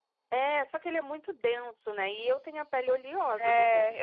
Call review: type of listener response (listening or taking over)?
taking over